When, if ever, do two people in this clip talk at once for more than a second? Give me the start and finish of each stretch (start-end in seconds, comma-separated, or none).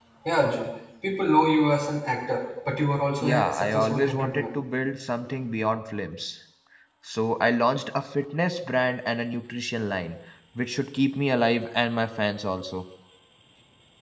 3.2-4.4